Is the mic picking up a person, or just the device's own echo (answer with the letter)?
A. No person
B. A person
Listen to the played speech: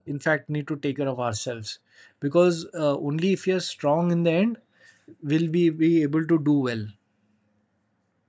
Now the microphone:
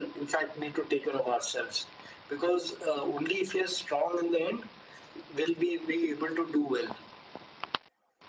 A